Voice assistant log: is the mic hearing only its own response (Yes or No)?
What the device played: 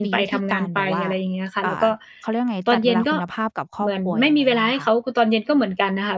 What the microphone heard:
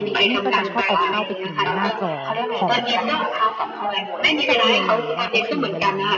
No